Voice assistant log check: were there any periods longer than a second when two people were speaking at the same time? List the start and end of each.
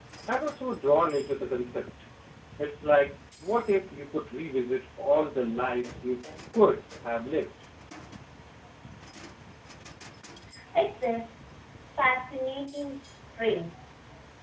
none

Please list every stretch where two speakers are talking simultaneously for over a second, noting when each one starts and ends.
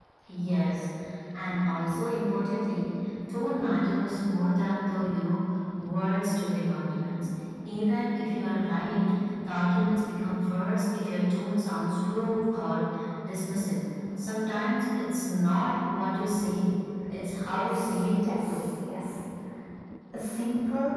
17.4-18.7

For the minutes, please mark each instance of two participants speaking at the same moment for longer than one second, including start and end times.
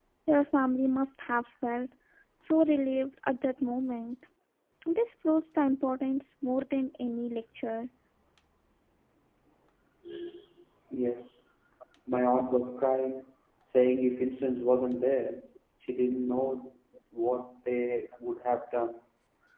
none

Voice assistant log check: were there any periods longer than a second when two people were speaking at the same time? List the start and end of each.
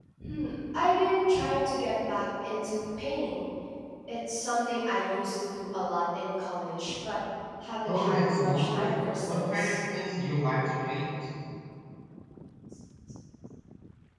7.8-9.8

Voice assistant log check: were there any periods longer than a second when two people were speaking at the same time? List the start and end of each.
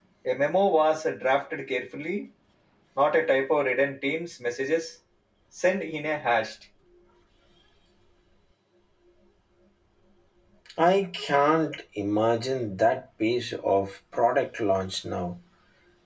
none

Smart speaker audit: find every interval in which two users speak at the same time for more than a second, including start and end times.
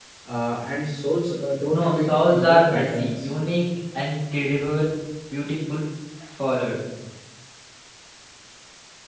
1.7-3.3

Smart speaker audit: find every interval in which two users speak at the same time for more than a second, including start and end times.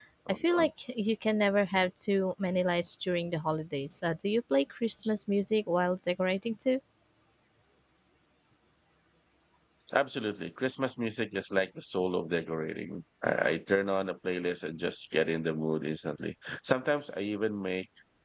none

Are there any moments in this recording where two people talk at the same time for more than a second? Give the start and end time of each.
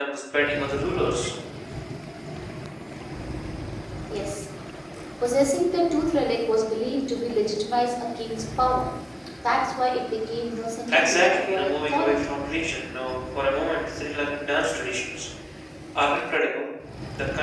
10.9-12.1

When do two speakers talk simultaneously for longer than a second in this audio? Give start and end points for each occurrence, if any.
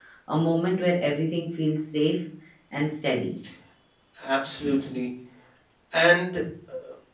none

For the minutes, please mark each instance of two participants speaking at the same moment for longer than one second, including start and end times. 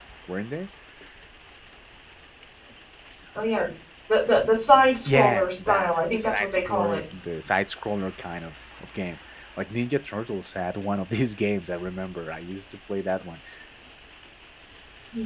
5.1-7.0

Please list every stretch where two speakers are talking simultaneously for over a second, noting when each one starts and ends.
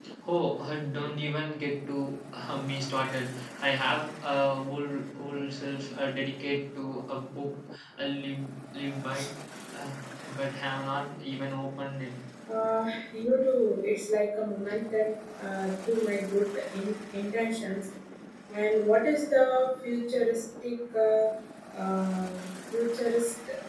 none

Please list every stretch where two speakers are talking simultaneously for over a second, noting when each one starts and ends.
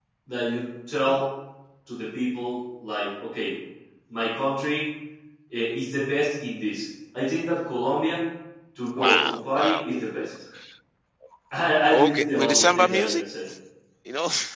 8.9-10.3, 11.9-13.2

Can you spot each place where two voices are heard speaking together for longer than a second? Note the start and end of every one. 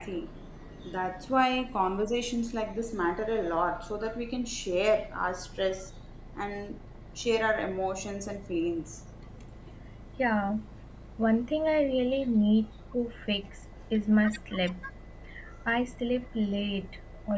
none

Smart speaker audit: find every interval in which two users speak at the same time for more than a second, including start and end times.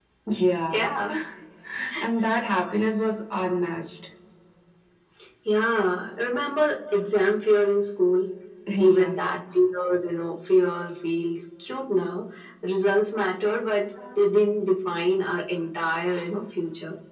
none

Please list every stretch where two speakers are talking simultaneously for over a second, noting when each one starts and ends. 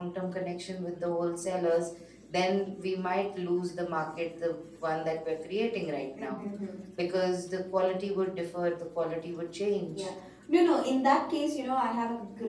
none

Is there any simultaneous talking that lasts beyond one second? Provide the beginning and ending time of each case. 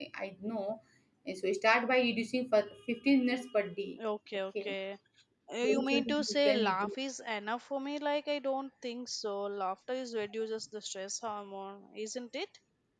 5.6-7.0

